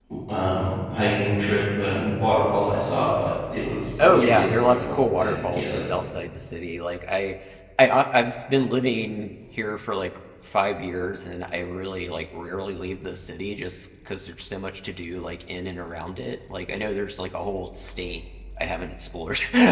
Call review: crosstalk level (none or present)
present